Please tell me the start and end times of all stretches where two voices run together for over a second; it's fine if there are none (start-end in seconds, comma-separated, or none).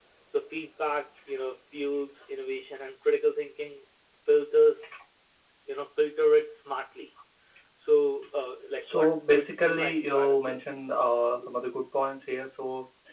8.8-10.8